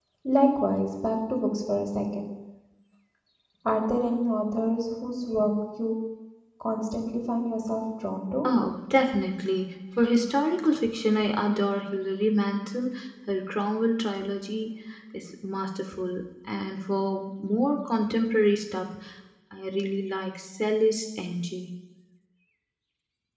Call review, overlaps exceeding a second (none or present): none